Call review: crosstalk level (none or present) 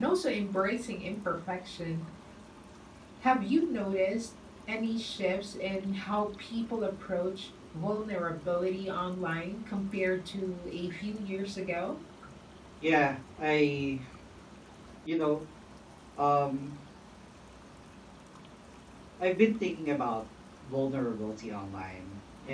none